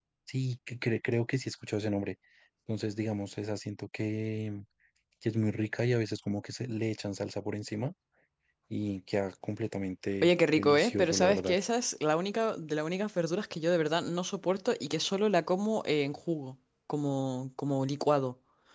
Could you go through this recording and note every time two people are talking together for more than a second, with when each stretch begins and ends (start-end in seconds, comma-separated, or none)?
10.2-11.6